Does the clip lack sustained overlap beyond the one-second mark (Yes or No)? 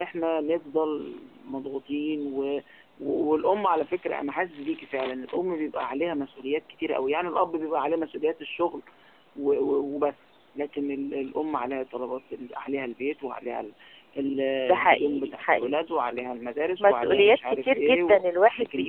No